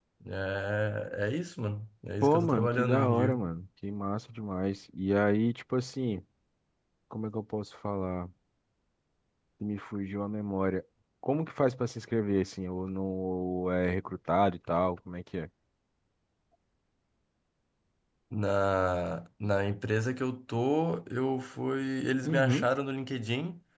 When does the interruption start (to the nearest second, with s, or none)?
2 s